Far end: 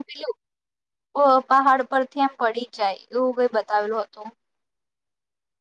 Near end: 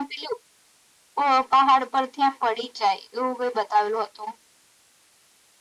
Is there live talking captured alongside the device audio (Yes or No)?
No